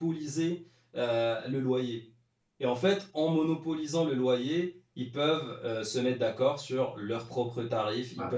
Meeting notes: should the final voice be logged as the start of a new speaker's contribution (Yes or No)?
No